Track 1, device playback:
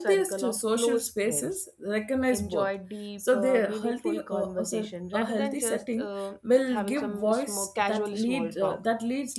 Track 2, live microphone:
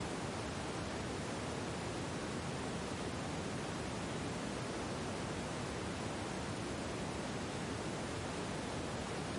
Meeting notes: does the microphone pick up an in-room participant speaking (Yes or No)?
No